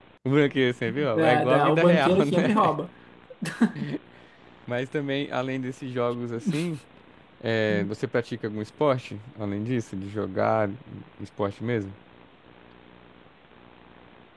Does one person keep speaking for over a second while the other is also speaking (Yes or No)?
Yes